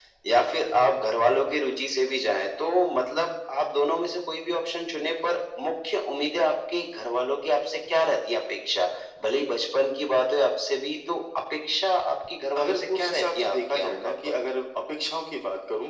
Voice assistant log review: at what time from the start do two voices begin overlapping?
12.6 s

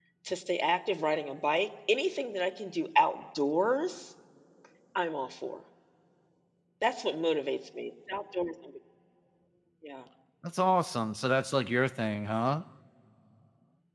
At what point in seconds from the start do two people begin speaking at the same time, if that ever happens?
none

